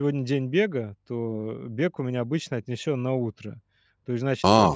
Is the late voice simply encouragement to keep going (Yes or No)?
No